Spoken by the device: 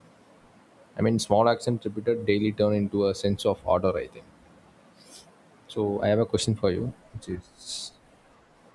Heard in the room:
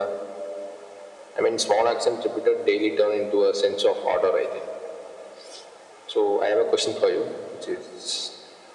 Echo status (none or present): present